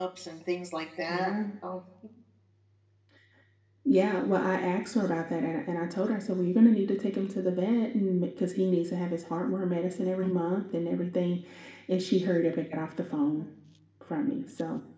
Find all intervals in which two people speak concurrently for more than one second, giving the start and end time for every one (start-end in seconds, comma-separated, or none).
none